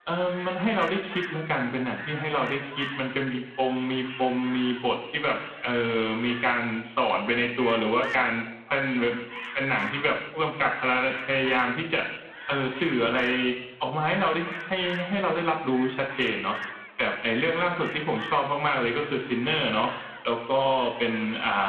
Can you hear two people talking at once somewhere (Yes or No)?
No